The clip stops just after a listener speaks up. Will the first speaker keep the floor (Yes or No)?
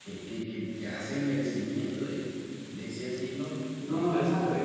No